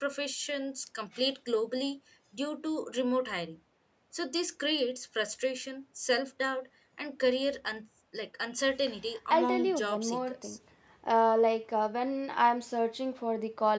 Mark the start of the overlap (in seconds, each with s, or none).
9.3 s